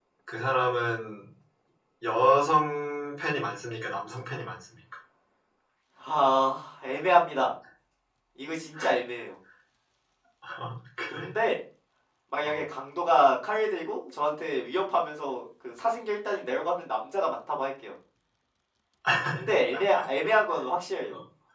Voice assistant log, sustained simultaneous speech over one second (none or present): none